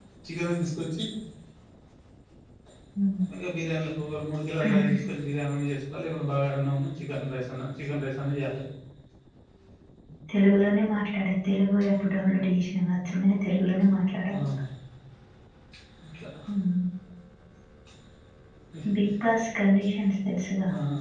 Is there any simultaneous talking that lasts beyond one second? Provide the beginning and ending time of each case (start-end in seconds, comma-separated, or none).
none